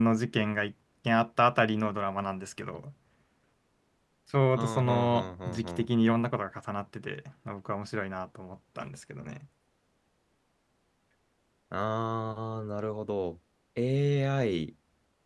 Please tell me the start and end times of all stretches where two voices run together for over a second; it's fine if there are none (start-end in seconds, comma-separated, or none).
4.6-5.8